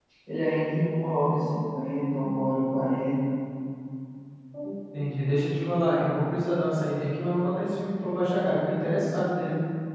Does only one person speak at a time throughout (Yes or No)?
Yes